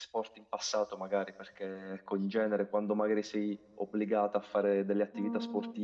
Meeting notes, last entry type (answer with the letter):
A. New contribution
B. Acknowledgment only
B